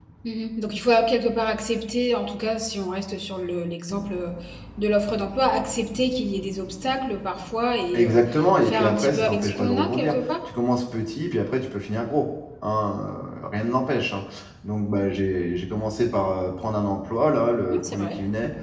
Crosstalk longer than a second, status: present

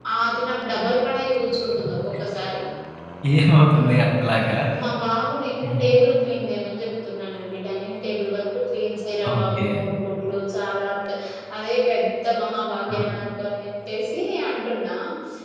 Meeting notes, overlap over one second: none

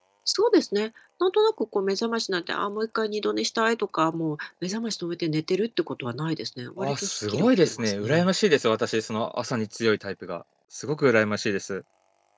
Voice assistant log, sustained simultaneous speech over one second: present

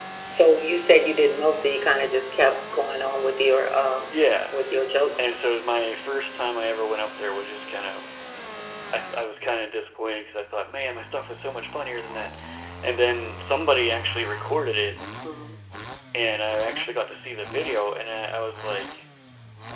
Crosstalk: none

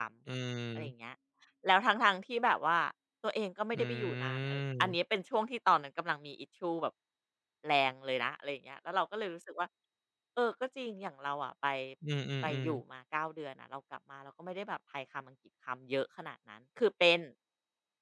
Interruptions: present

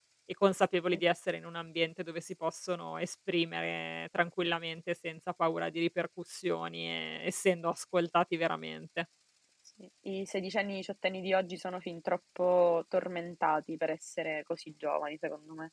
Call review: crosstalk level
none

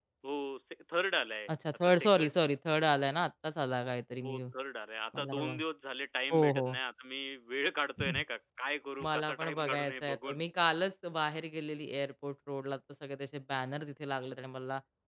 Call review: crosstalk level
present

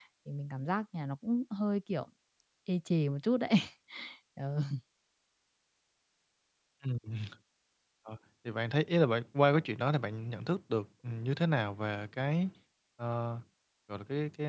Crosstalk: none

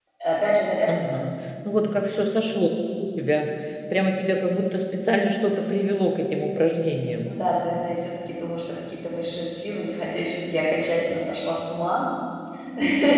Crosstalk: none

